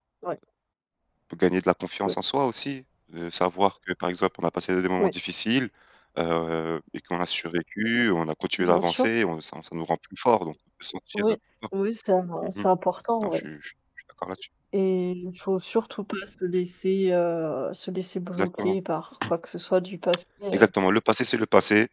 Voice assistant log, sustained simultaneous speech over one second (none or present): none